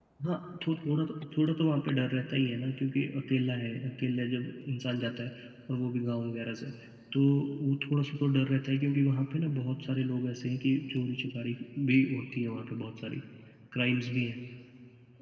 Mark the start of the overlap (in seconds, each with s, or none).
none